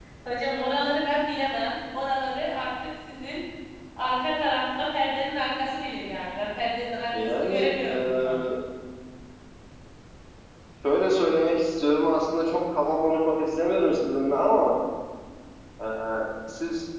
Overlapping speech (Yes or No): Yes